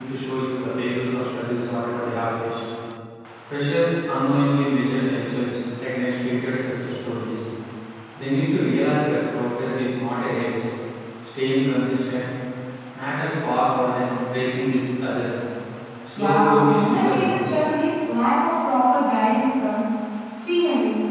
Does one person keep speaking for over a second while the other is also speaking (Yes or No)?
Yes